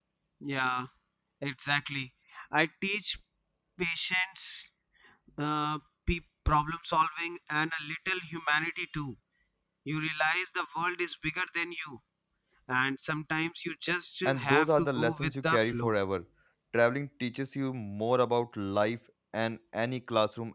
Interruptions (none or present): present